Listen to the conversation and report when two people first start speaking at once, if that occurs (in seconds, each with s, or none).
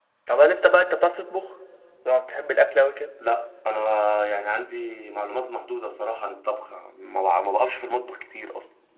none